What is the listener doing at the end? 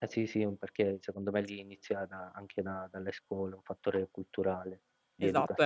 taking over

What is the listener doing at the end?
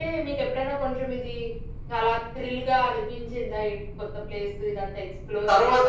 taking over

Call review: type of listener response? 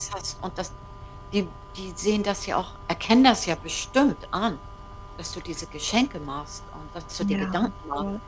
taking over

